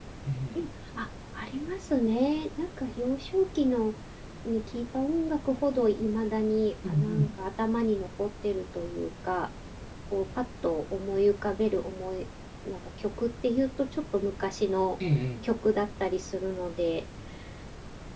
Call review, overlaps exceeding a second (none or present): none